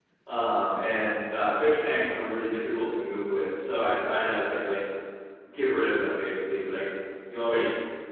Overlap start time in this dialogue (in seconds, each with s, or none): none